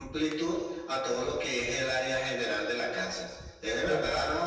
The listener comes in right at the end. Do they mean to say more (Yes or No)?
No